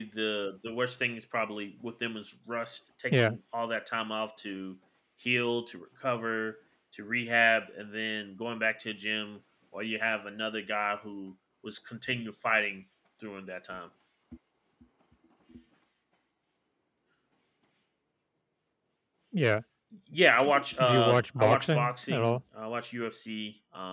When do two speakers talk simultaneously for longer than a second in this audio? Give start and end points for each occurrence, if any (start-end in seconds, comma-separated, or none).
20.4-22.4